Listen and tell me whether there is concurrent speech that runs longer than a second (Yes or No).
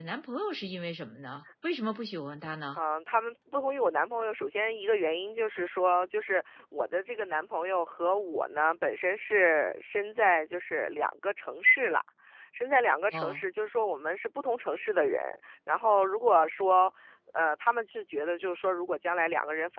No